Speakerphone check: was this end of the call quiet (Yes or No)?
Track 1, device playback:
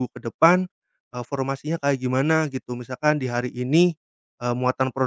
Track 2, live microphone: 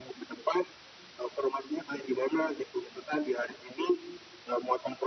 Yes